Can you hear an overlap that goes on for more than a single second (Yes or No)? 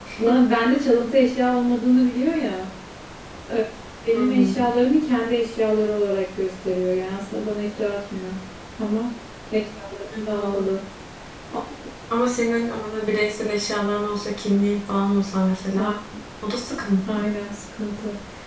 No